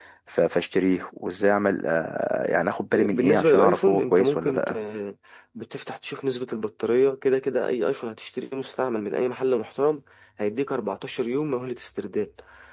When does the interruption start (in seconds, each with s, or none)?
2.9 s